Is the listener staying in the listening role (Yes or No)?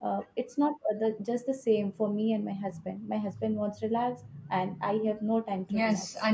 No